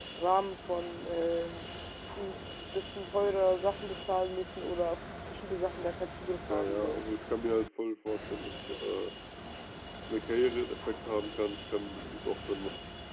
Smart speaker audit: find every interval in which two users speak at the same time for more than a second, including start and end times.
none

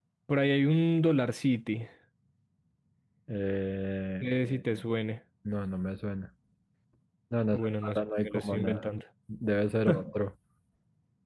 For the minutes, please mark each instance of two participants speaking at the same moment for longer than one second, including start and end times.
7.5-8.9

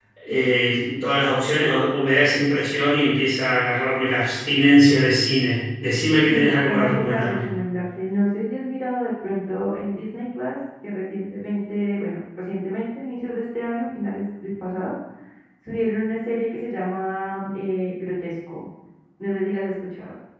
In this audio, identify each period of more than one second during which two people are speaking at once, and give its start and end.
6.3-7.5

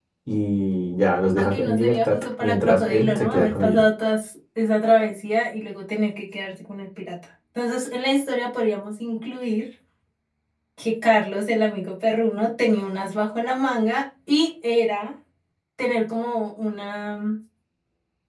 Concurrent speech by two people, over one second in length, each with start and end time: 1.4-3.8

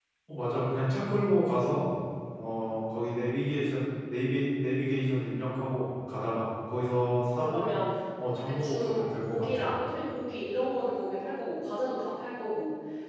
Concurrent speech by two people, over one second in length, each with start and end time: 8.4-9.7

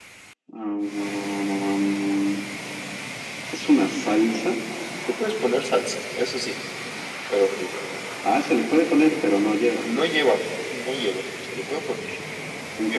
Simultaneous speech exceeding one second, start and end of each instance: none

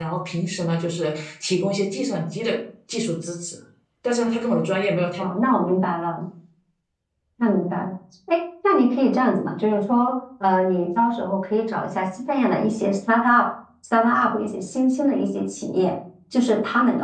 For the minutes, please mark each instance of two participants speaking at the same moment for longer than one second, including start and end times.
none

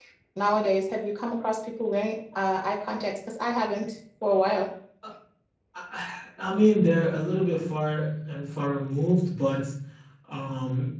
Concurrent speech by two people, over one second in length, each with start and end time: none

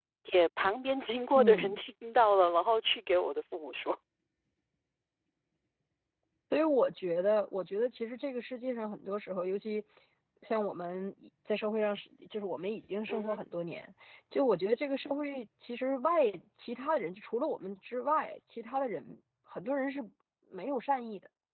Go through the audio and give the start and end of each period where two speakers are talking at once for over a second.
none

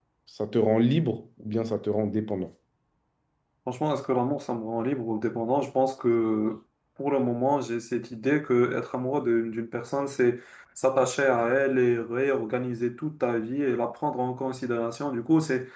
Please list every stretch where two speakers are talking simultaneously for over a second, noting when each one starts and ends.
none

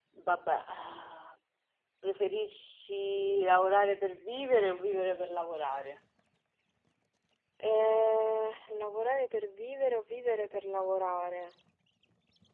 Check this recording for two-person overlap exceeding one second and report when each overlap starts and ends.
none

